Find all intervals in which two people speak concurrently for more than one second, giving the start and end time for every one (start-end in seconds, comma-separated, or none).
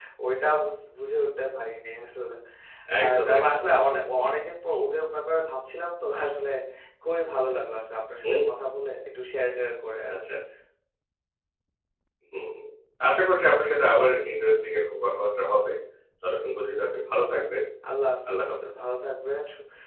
3.0-4.2